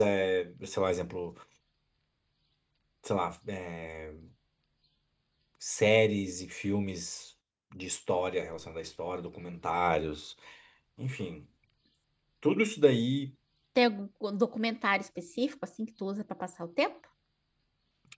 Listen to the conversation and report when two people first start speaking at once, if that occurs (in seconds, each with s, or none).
none